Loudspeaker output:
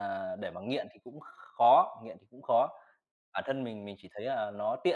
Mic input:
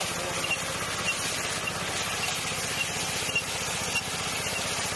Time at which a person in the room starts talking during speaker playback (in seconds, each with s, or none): none